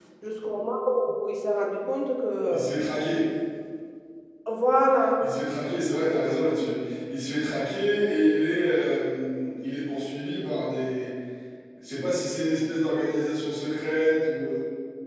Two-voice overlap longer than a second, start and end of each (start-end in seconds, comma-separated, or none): none